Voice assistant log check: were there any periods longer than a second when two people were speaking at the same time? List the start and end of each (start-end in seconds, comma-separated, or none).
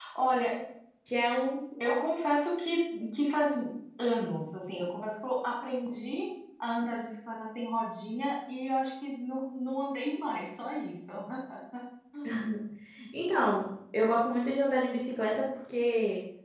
none